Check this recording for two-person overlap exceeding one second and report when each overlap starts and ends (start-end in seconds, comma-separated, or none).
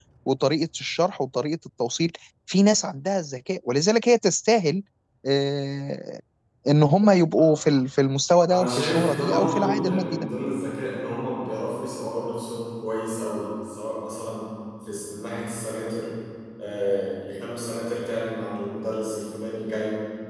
8.5-10.3